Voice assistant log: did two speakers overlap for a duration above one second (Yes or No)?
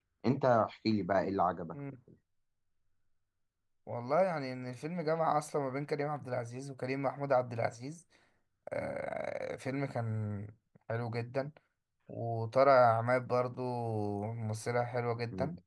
No